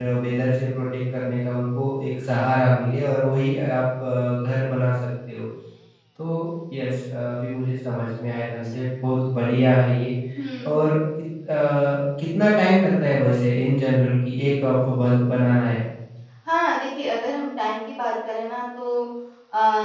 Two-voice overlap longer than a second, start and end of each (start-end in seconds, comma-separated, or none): none